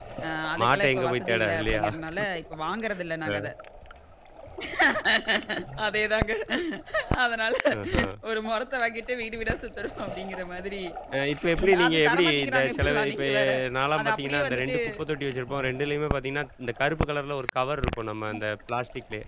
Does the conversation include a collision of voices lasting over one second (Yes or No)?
Yes